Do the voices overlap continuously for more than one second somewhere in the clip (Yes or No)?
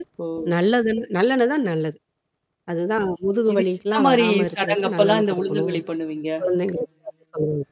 Yes